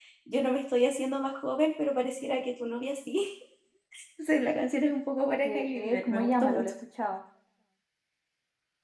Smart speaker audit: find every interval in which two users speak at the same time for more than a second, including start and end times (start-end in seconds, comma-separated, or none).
5.4-6.7